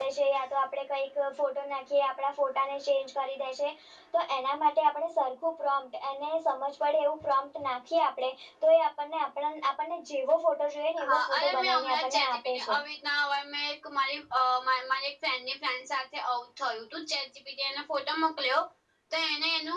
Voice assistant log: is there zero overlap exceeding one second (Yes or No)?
No